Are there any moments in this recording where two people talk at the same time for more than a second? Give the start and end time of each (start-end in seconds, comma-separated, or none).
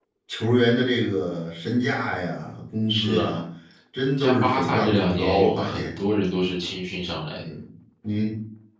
4.2-5.9